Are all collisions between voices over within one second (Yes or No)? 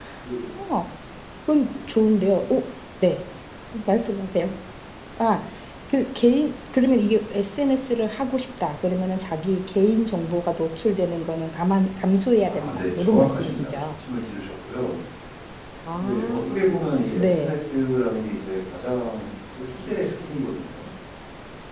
No